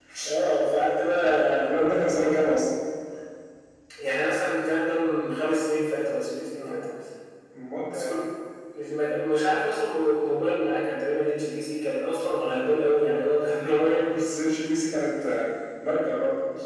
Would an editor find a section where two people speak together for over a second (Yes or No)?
No